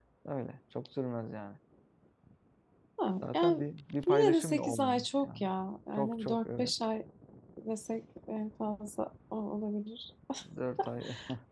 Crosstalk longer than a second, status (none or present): present